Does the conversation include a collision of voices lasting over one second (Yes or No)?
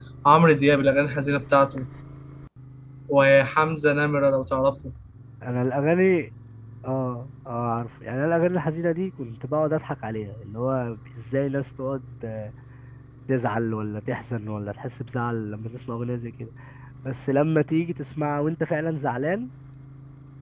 No